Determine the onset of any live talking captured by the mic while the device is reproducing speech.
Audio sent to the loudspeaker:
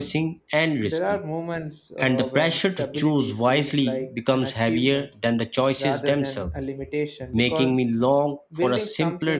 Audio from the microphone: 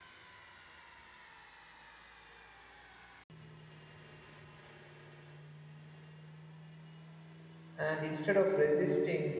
7.8 s

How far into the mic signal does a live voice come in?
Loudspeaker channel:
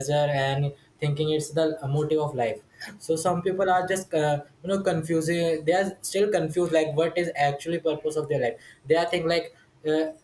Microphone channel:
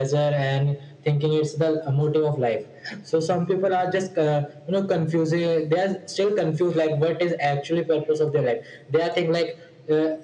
none

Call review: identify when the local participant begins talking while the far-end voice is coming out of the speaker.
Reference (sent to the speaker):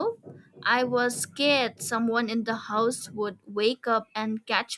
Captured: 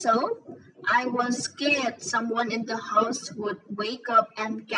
none

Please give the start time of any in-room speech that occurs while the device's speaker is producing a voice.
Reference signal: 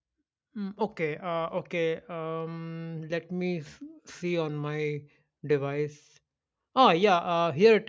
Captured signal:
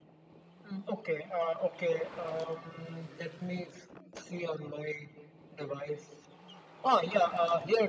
none

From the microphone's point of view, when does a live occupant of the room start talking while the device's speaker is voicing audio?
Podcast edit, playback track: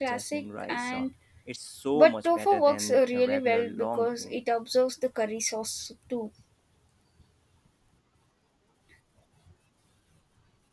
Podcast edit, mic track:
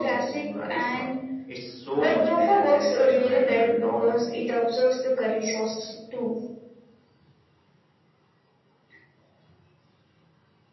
none

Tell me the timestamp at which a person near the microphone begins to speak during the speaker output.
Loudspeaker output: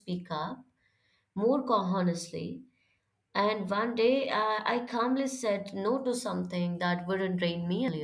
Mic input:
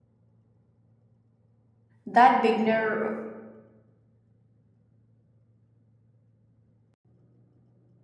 2.0 s

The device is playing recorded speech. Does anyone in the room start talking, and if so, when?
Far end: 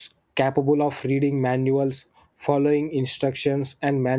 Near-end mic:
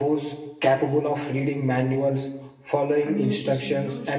3.0 s

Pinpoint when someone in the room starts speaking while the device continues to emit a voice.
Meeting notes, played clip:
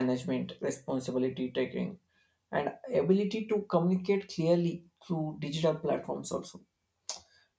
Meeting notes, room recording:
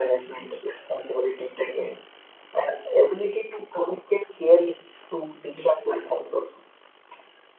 none

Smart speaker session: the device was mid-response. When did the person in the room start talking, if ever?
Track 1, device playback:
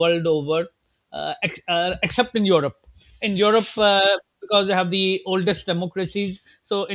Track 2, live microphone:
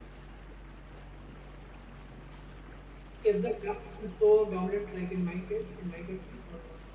3.2 s

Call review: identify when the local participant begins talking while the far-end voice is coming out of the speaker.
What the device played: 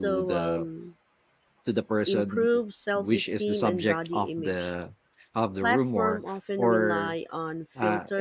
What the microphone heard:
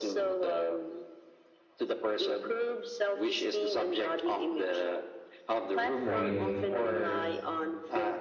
6.0 s

